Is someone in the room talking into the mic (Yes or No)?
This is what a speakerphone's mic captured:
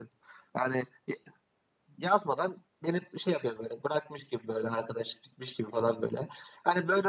No